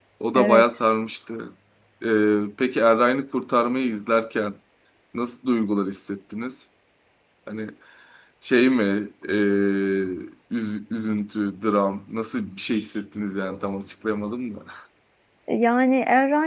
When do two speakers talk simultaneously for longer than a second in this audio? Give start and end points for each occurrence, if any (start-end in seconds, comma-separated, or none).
none